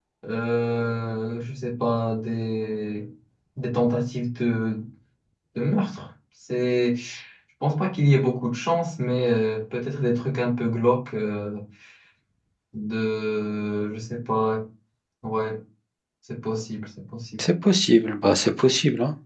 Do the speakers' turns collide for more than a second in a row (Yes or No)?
No